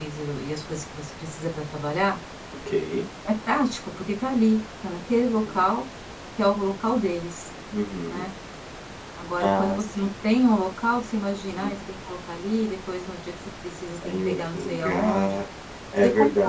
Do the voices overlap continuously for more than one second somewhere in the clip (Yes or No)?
Yes